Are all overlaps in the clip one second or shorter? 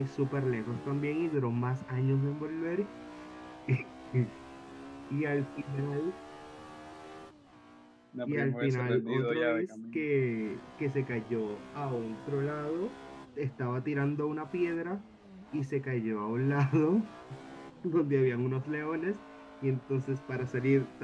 No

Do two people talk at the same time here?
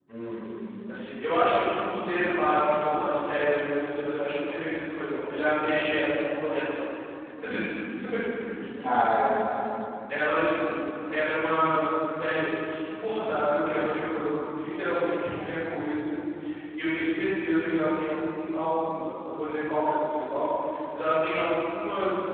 No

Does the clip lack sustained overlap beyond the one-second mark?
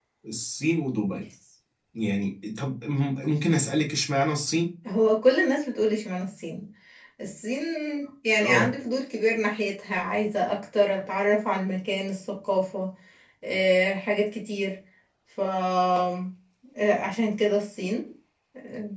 Yes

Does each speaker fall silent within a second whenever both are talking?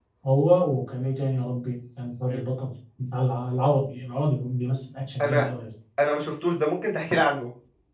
Yes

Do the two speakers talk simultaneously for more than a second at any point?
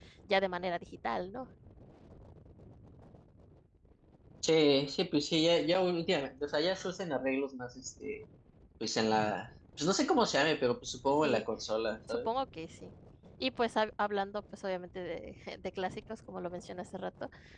No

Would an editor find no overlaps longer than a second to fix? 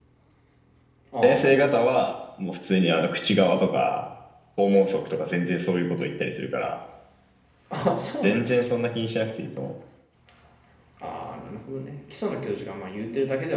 Yes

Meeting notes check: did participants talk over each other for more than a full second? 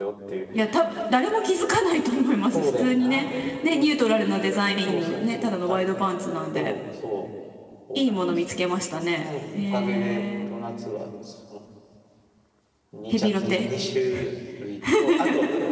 Yes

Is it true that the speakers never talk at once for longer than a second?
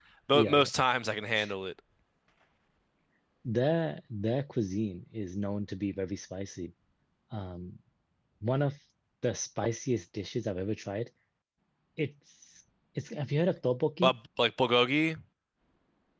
Yes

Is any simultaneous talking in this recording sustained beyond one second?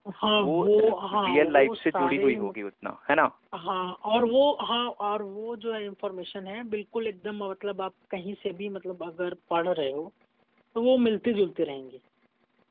Yes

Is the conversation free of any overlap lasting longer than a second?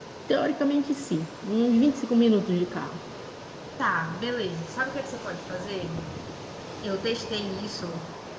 Yes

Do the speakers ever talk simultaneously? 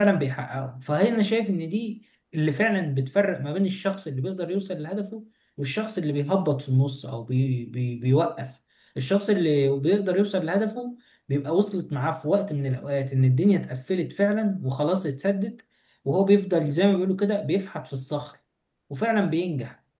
No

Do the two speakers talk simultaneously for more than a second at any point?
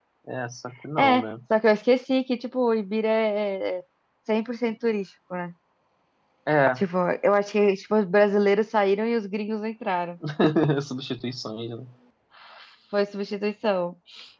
No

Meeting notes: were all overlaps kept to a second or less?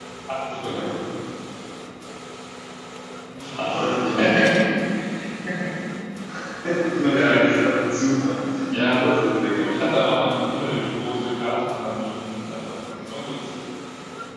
No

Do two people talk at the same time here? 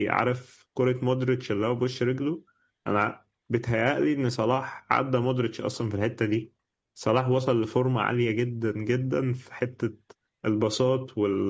No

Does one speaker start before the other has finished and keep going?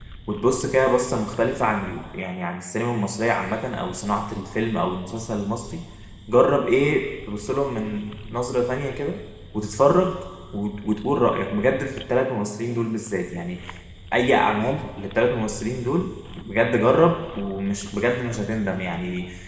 No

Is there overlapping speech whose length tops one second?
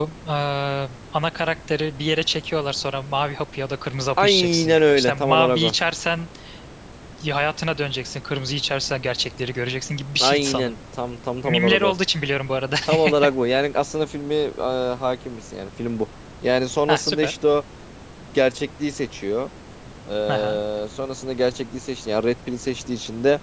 Yes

